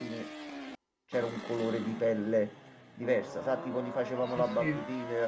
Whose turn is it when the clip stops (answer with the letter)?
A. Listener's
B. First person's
B